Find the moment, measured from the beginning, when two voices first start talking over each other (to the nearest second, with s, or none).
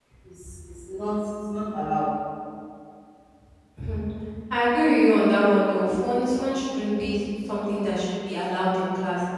none